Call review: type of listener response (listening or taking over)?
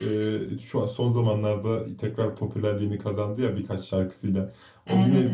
listening